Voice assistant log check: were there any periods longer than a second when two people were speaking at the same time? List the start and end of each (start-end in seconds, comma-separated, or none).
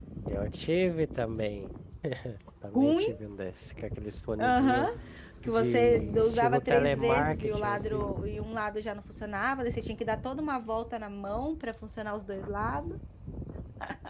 5.5-8.1